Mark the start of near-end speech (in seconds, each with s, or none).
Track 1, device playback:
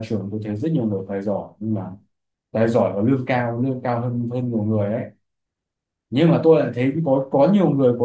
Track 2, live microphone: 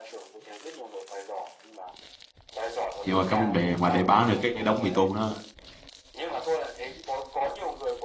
3.0 s